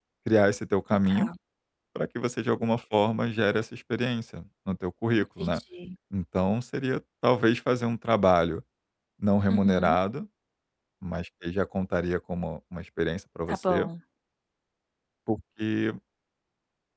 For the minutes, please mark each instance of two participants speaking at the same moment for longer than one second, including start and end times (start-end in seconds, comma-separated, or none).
none